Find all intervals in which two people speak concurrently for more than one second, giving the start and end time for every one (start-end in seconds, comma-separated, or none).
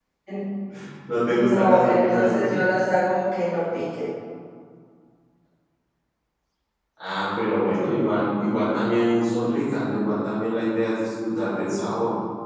1.3-2.5